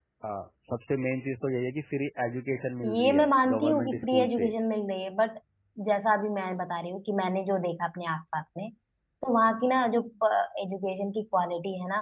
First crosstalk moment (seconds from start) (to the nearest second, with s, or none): 3 s